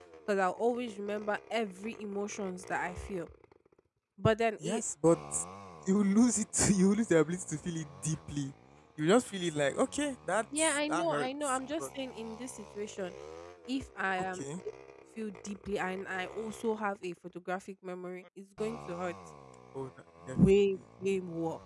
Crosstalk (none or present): present